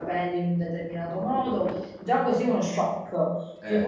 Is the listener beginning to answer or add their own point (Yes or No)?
No